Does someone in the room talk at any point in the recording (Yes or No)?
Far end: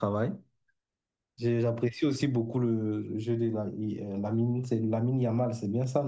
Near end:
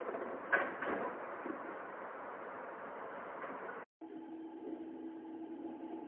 No